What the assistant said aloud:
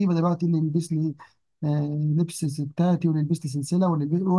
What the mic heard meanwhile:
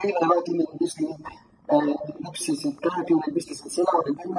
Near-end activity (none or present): none